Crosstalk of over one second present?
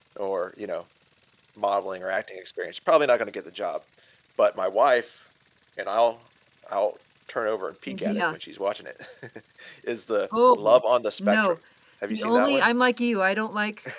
No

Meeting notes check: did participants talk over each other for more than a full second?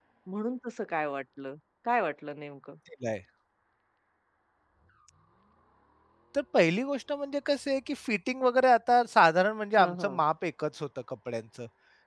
No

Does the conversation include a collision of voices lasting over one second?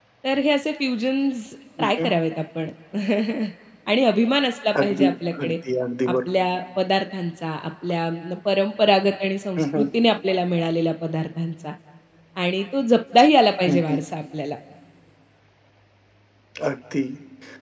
No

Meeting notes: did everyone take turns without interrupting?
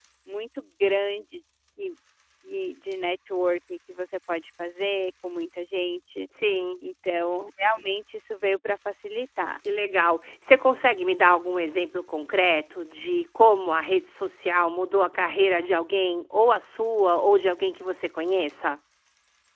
Yes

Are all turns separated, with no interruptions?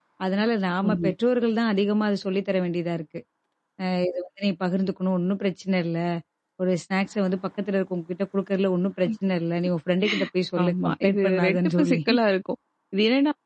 No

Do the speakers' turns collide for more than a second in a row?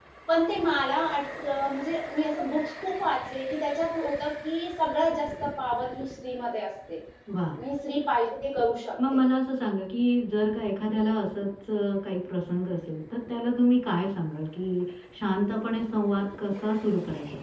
No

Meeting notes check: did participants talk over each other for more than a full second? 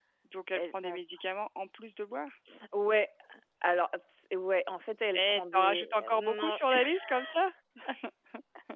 Yes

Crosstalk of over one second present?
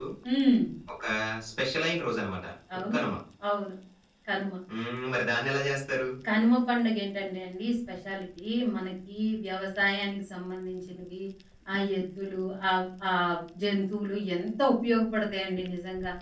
No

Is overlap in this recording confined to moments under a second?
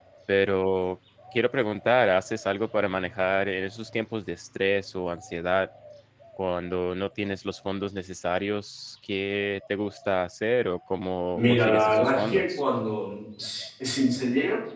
No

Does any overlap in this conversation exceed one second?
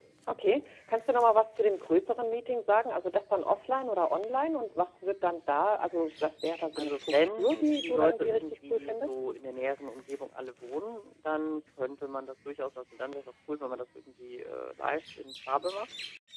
Yes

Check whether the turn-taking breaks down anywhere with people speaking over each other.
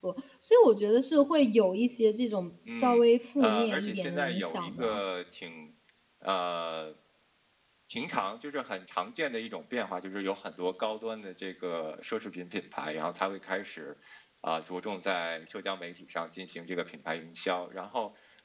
Yes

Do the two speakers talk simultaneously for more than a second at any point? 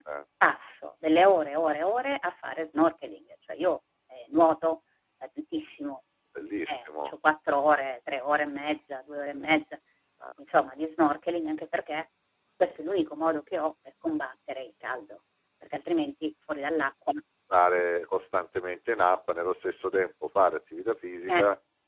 No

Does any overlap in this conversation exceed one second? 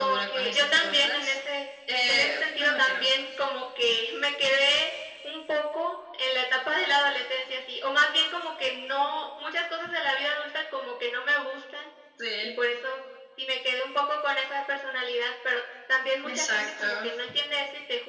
Yes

